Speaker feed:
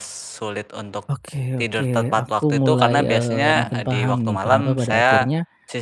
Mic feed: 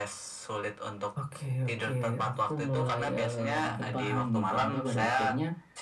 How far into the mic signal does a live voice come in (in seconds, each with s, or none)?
none